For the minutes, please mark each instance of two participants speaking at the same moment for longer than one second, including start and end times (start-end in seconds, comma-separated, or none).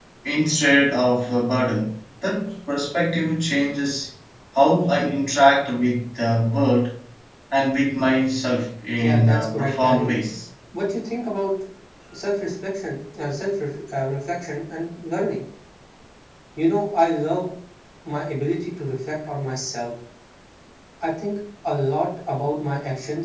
9.0-10.3